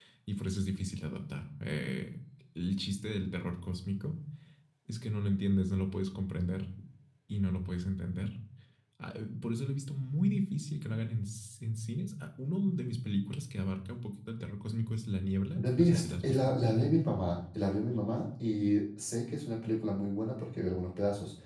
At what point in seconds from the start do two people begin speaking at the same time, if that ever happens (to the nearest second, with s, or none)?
16 s